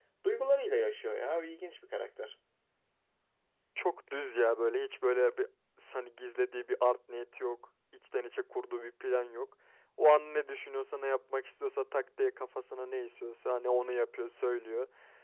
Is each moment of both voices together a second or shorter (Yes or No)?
Yes